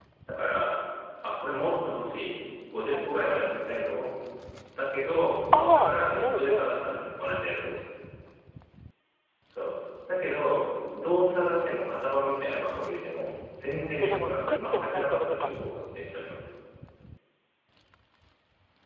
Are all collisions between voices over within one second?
No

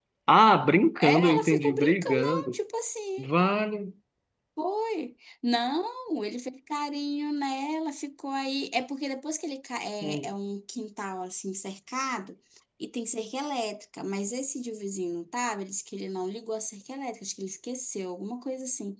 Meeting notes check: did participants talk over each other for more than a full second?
Yes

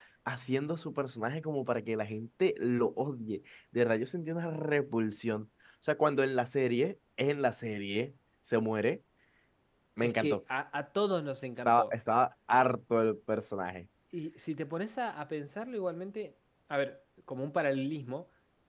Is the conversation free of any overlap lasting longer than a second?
Yes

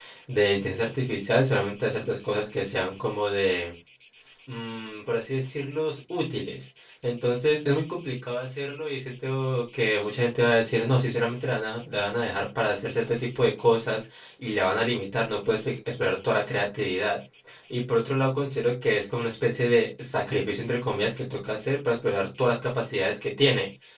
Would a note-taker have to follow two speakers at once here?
No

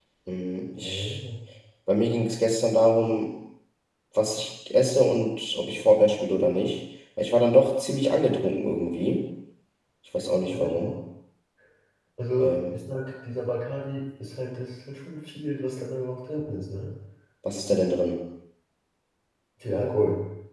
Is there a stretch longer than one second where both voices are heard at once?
No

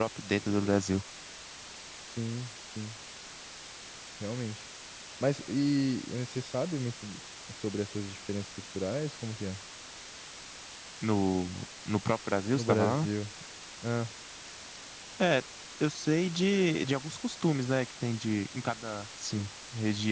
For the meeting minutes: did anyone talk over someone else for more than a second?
No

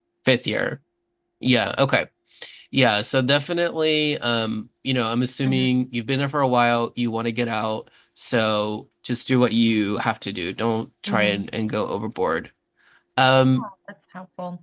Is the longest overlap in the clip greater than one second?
No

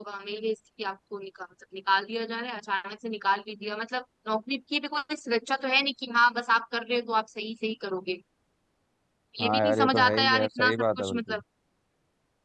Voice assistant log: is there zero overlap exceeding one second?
No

